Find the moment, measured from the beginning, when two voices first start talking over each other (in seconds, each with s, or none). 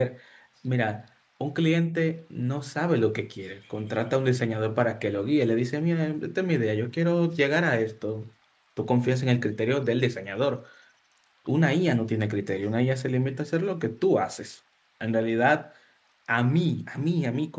none